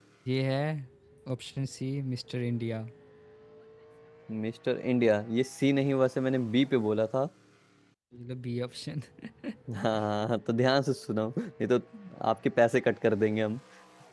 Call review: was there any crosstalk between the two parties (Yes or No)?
No